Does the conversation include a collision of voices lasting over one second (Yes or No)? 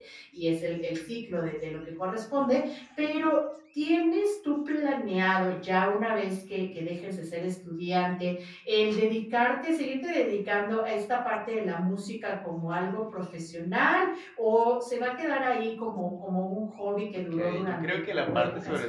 Yes